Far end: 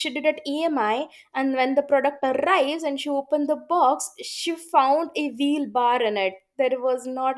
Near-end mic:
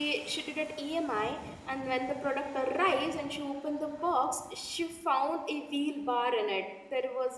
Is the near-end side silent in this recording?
Yes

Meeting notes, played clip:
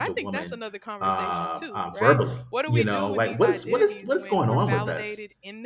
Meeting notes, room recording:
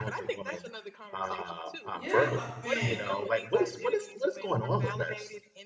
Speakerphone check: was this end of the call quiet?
No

